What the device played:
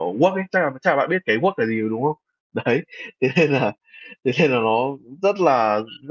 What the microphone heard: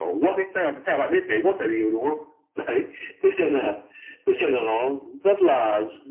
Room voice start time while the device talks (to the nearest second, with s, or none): none